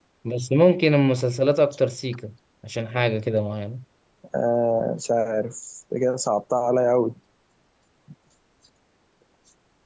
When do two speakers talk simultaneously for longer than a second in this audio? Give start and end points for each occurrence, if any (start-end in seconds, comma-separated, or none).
none